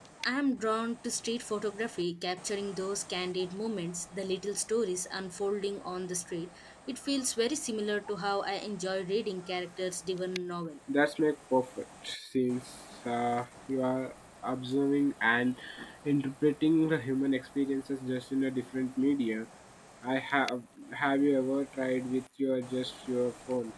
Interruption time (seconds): none

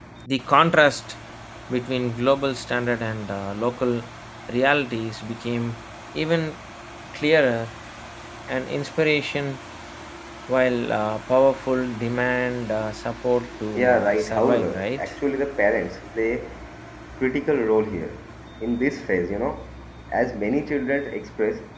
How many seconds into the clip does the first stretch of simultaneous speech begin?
13.7 s

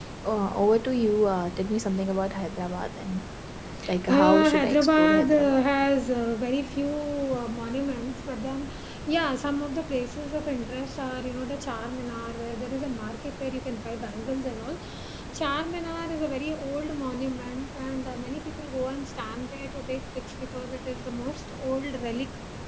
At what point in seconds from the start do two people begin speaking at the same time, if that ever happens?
4.1 s

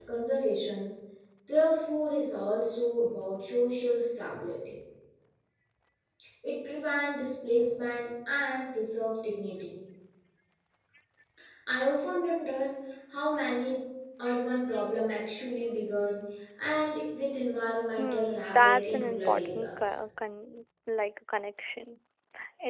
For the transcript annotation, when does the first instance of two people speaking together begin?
18.0 s

